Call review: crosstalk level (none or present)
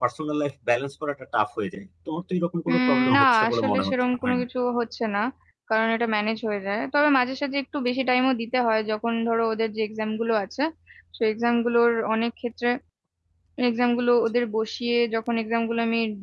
present